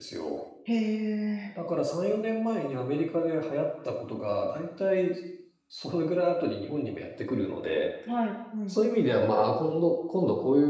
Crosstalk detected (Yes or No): No